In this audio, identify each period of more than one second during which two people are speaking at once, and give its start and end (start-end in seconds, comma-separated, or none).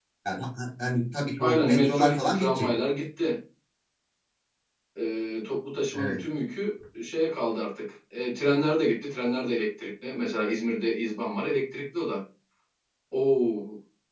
1.4-2.7